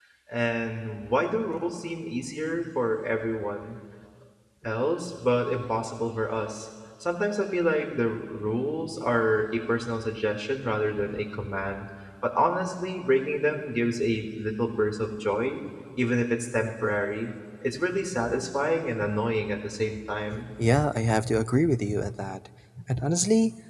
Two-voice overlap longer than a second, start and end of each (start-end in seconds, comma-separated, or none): none